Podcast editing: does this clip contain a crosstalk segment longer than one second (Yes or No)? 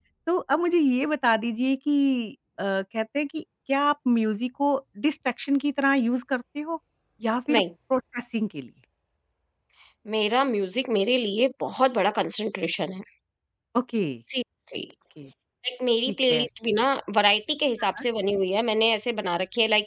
No